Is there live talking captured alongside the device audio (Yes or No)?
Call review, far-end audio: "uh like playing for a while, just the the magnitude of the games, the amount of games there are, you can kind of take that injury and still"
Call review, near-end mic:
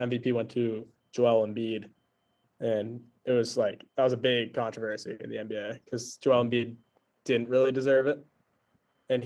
Yes